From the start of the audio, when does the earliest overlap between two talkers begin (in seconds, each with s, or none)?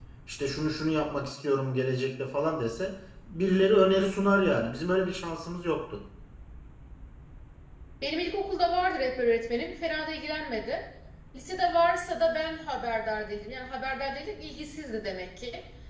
none